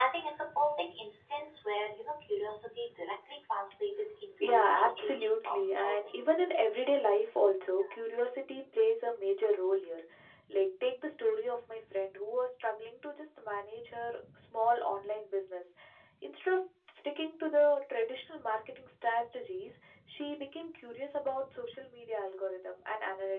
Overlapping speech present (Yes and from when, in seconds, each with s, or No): Yes, from 4.4 s